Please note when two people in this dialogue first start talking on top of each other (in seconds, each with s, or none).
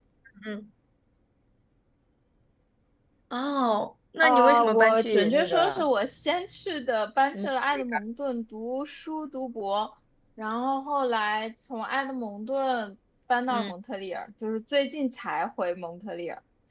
4.2 s